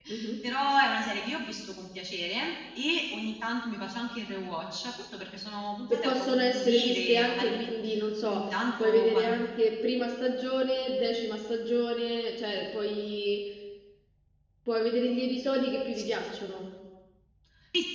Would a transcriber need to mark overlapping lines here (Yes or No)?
Yes